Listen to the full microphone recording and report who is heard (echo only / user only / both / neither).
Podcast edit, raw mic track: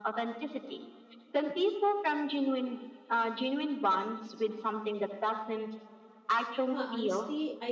both